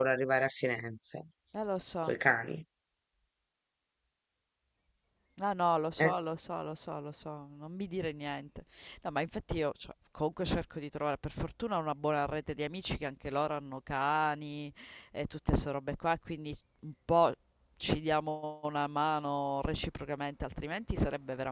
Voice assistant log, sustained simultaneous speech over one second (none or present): none